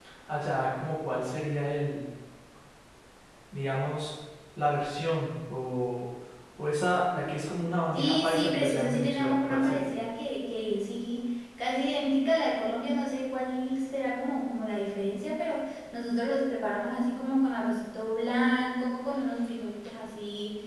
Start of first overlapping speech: 8 s

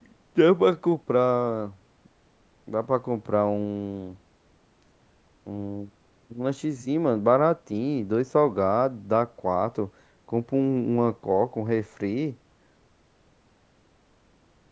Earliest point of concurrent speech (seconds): none

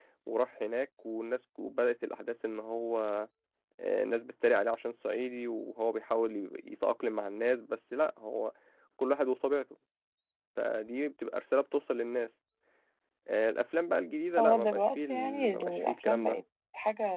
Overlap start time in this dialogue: 14 s

